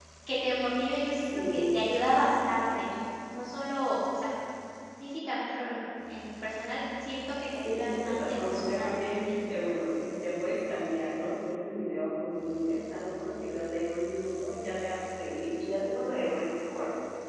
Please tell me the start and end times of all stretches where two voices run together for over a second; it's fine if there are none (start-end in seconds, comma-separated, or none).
7.6-9.2